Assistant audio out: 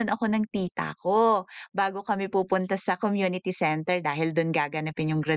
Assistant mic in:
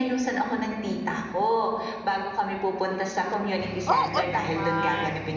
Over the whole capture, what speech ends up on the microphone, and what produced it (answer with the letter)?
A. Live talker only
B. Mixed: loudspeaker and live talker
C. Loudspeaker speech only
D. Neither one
B